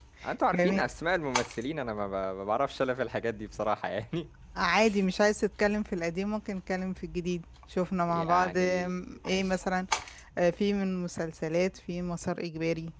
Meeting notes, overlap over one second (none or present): present